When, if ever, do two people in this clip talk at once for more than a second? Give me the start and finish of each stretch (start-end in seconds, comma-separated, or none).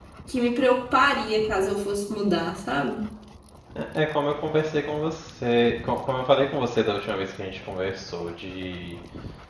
none